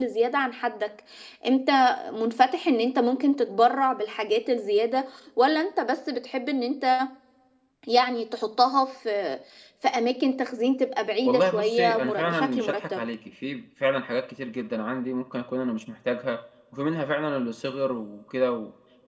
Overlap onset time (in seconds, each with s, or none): 11.2 s